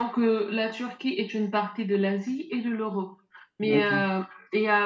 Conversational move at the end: listening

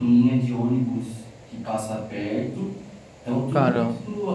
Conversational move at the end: listening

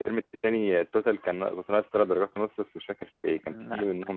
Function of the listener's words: listening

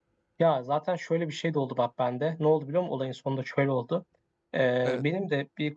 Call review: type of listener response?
listening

